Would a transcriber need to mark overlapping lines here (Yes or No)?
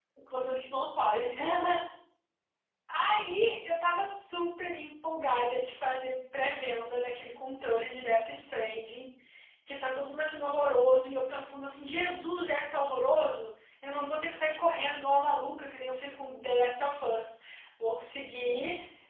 No